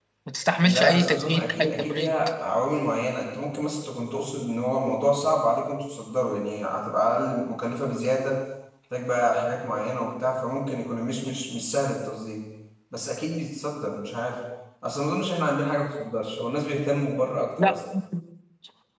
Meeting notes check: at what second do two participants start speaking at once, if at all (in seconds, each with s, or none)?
0.6 s